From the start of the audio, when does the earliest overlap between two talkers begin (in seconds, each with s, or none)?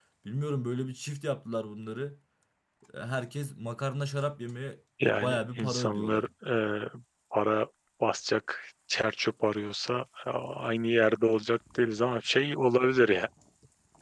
5.0 s